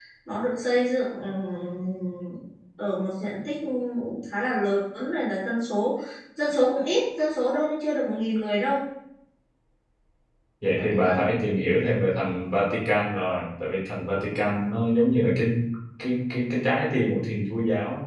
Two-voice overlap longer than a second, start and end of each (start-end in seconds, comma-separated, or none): none